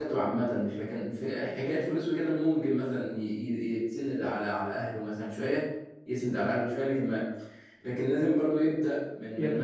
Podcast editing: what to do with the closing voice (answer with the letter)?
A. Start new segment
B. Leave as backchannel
B